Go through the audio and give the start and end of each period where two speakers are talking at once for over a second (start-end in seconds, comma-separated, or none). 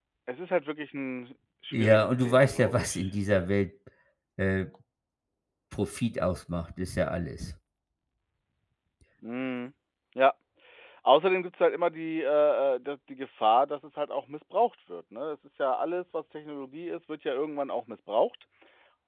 1.7-3.1